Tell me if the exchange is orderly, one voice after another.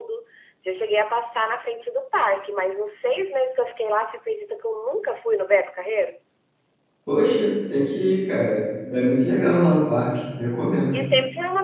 Yes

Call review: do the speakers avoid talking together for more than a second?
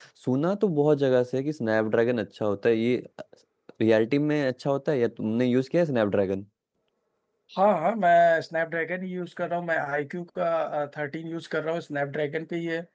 Yes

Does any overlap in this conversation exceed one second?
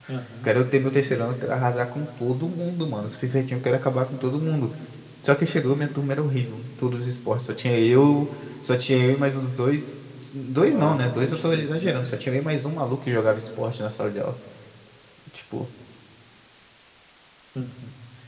Yes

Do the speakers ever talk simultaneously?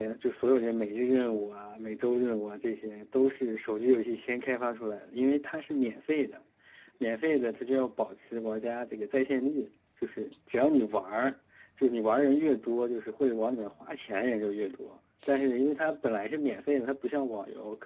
No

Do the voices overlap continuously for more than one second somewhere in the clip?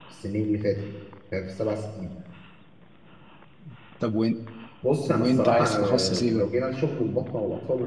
Yes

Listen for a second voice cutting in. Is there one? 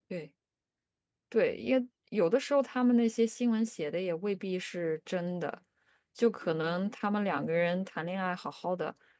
No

